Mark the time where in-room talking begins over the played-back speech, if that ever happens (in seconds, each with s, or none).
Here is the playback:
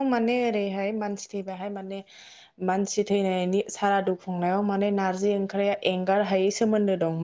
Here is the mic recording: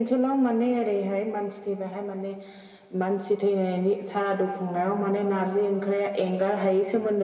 none